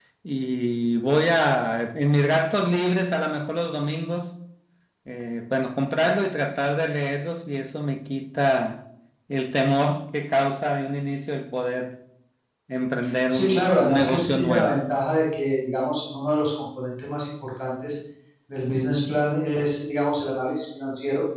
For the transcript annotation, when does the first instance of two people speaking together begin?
13.3 s

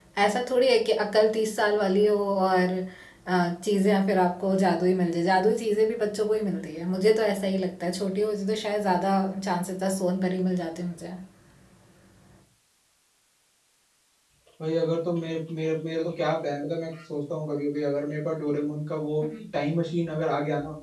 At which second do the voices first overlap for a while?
none

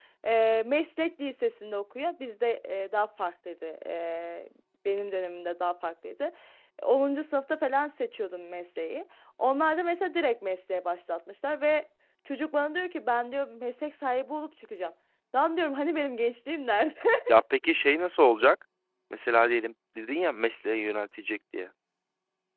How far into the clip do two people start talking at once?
none

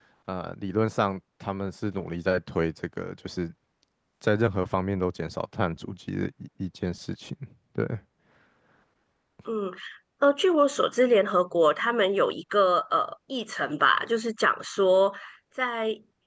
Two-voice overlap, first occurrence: none

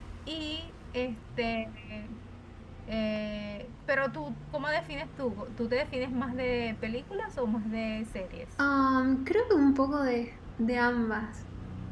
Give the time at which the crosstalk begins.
none

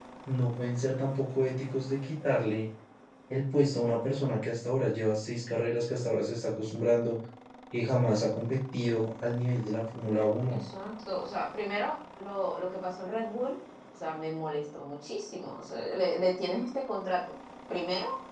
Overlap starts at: none

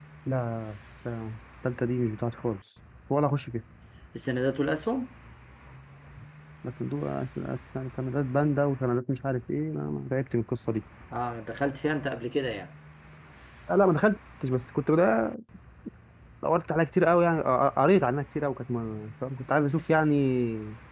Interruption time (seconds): none

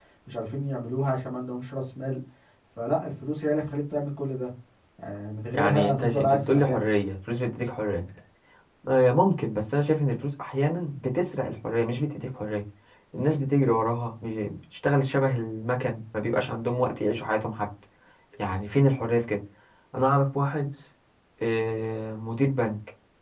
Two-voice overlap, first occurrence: 5.5 s

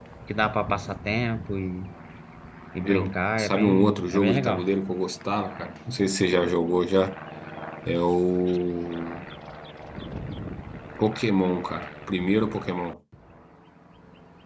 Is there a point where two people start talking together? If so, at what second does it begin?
2.8 s

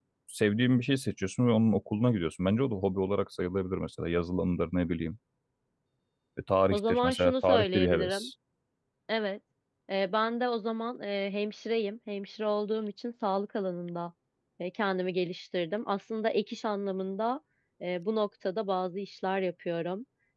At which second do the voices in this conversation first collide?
6.7 s

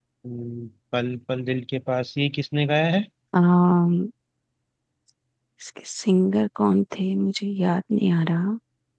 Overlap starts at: none

